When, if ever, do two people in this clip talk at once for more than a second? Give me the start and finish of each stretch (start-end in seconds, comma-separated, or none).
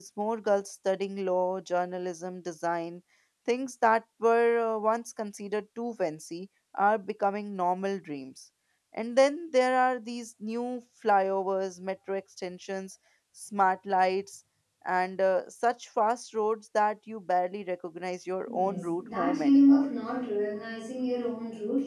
18.5-19.9